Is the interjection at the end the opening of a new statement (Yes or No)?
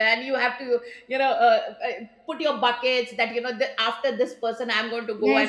Yes